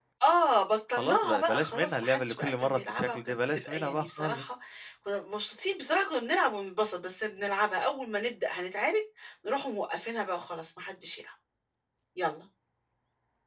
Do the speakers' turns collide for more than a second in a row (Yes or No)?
Yes